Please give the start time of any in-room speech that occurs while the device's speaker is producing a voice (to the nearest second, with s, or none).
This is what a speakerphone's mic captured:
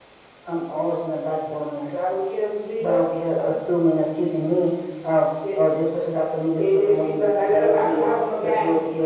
none